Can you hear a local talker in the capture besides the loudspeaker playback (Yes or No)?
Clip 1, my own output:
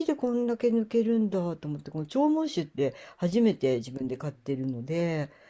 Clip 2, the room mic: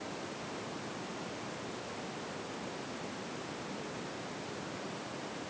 No